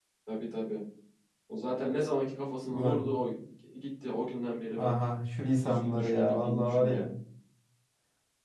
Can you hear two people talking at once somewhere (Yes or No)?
Yes